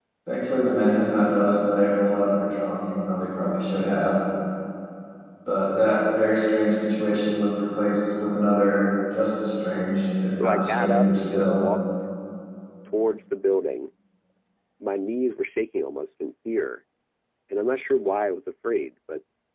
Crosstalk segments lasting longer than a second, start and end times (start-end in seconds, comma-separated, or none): 10.4-11.7